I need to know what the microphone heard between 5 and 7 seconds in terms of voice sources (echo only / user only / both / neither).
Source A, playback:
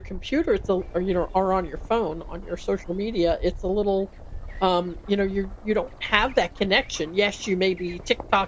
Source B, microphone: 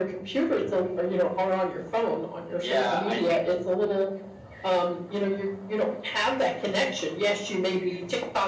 echo only